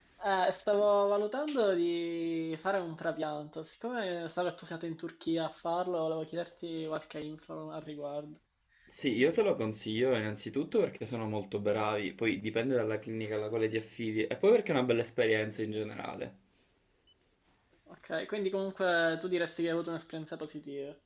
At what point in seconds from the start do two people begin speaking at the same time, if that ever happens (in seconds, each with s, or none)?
none